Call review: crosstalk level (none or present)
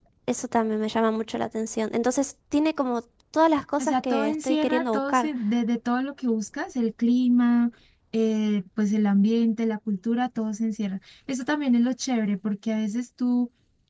present